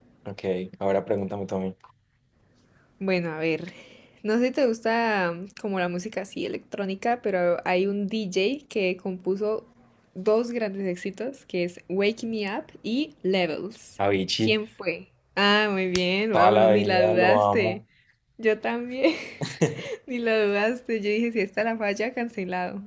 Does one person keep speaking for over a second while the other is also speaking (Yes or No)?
Yes